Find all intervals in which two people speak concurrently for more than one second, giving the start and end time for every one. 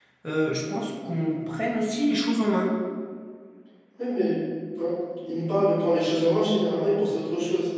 none

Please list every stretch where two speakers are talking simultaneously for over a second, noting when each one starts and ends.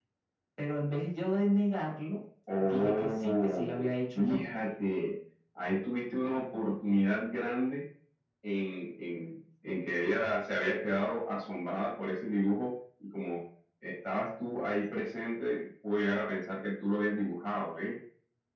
2.6-4.4

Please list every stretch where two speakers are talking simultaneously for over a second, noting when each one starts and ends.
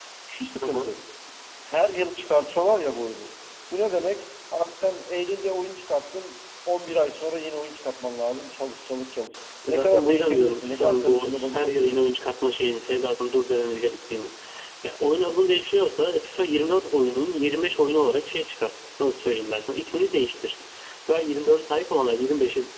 9.7-11.8

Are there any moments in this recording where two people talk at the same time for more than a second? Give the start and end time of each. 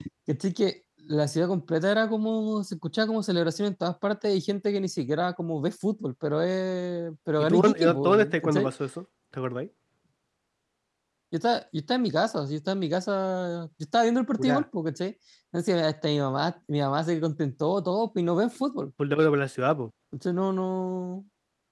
7.4-8.7

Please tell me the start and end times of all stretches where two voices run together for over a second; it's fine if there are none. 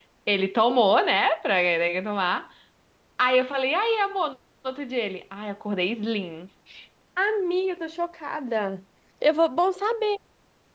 none

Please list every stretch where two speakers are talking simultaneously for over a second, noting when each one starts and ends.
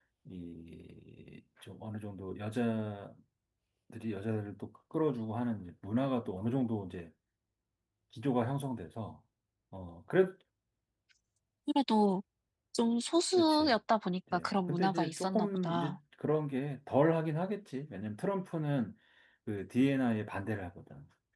14.3-16.0

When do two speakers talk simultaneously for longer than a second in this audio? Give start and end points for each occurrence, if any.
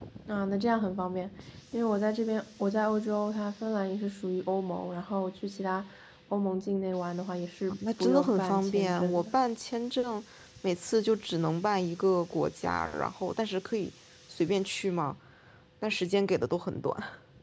7.7-9.3

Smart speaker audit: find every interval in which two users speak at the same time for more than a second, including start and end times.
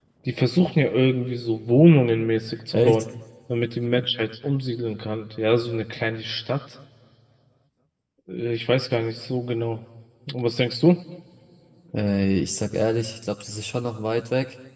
none

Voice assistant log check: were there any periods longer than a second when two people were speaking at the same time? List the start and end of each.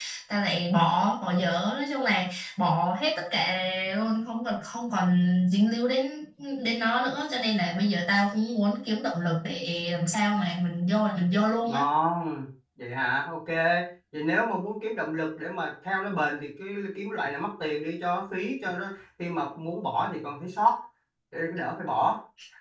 none

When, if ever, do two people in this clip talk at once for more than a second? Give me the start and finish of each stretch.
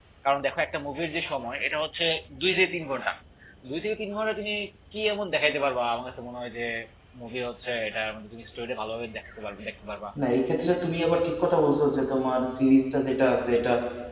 none

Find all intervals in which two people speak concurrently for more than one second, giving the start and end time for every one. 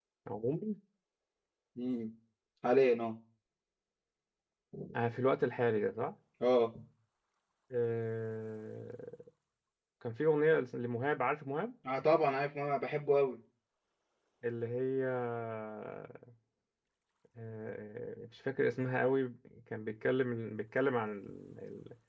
none

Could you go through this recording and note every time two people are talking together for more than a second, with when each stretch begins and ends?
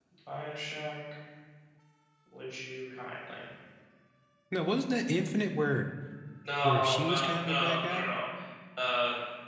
6.6-8.1

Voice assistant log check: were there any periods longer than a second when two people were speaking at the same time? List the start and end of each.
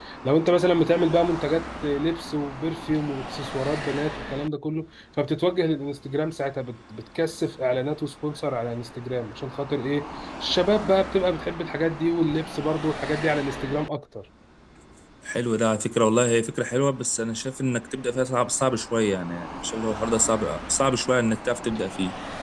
none

